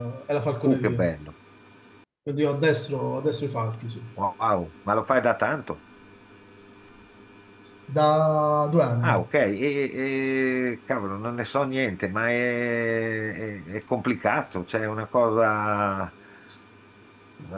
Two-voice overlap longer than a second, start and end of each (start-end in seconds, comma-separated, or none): none